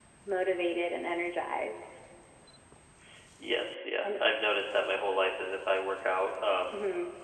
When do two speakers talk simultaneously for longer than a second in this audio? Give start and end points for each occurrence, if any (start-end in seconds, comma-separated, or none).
none